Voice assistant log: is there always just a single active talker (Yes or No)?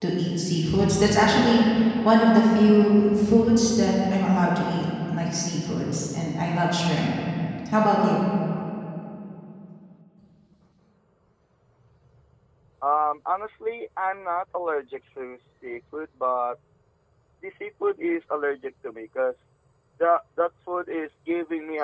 Yes